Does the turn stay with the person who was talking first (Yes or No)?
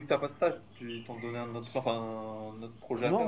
No